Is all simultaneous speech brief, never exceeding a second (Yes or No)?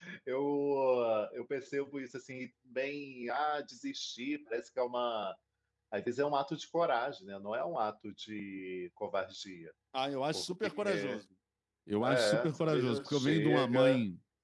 No